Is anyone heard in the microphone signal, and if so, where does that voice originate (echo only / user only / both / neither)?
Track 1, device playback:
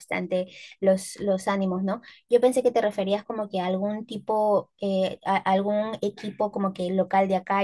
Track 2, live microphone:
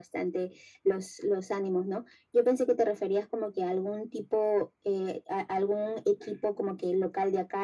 echo only